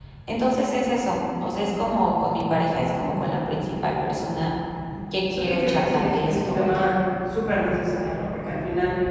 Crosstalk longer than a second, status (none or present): present